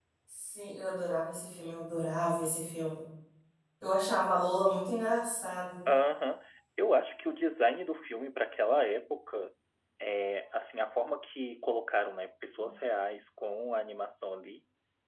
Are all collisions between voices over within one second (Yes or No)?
Yes